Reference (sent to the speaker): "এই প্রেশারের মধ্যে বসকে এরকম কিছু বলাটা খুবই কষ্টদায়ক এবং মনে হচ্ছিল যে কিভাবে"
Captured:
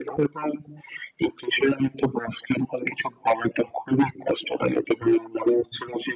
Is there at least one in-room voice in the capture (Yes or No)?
No